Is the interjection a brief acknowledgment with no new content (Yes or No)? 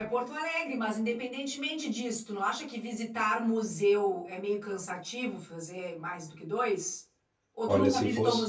No